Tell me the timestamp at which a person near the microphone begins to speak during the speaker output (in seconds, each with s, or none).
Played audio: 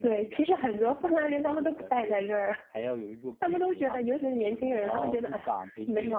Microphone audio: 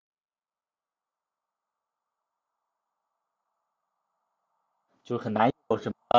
5.0 s